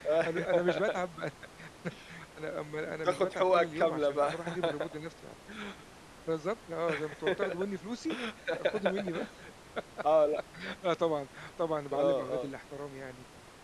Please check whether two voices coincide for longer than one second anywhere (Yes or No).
Yes